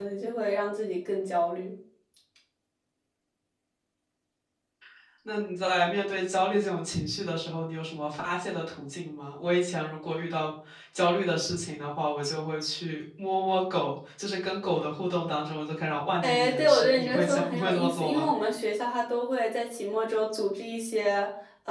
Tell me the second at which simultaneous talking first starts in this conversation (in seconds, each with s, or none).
16.2 s